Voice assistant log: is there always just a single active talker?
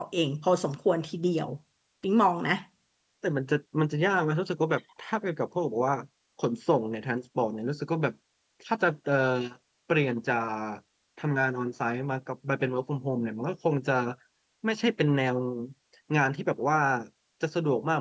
Yes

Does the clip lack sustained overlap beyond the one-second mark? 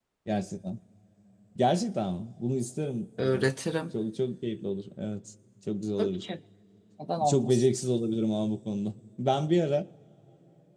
Yes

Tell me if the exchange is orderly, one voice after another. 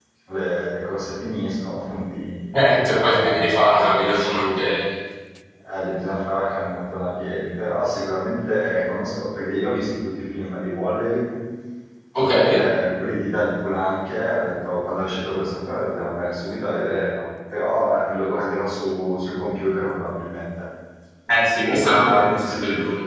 No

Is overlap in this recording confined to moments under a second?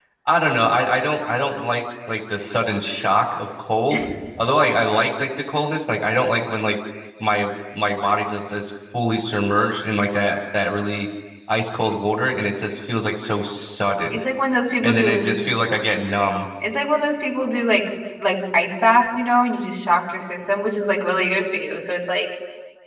Yes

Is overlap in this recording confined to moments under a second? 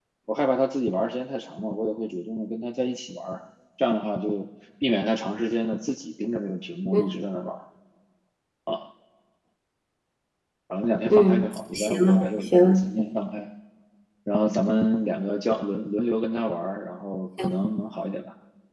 No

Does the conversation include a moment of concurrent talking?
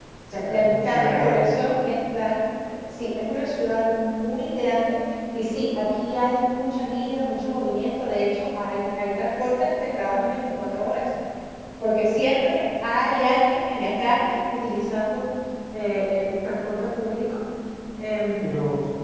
Yes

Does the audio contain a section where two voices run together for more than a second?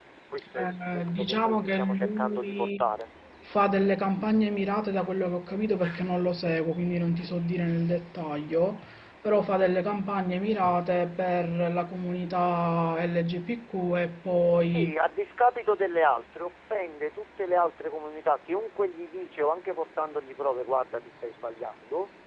Yes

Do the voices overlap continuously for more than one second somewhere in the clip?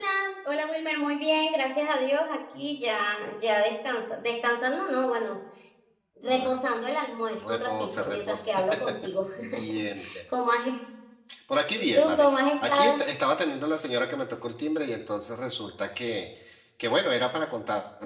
Yes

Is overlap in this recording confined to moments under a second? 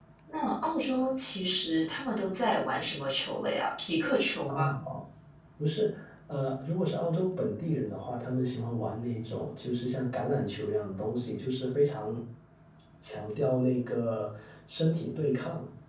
Yes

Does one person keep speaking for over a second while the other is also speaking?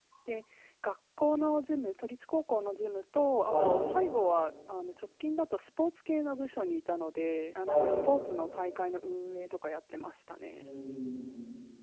No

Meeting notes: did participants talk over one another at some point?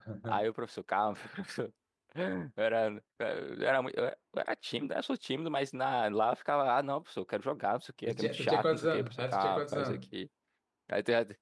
Yes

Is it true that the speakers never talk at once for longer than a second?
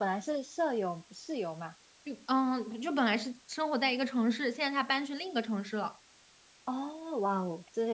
Yes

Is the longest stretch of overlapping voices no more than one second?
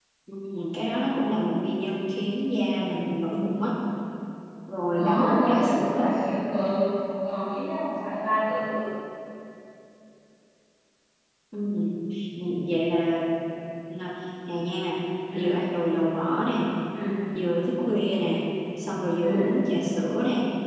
No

